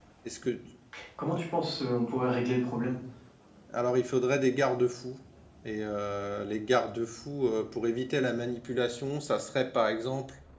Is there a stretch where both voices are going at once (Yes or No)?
No